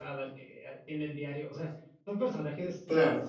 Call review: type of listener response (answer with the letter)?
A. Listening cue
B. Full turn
A